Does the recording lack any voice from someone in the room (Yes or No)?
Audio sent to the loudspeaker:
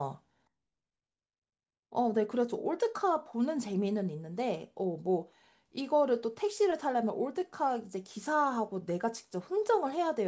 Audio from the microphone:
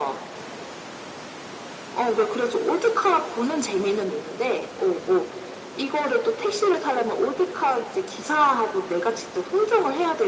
Yes